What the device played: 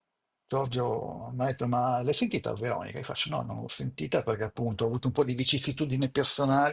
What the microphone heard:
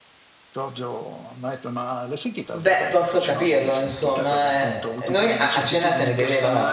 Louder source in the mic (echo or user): user